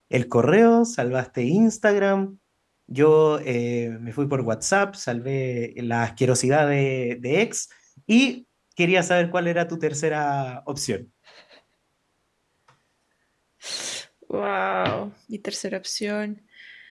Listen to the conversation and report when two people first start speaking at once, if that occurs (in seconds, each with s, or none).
none